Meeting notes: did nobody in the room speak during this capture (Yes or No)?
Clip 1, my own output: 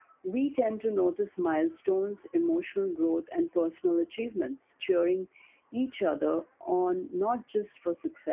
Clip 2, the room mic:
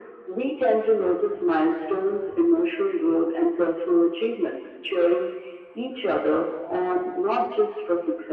Yes